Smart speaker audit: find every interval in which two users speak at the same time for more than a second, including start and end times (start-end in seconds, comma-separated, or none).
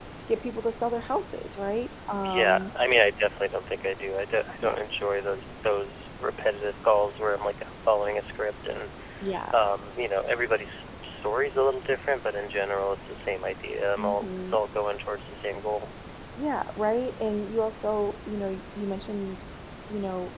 none